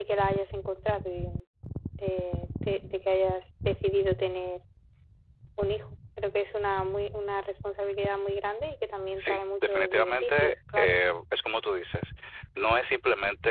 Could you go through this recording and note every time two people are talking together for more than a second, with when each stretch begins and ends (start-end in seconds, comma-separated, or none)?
9.2-11.0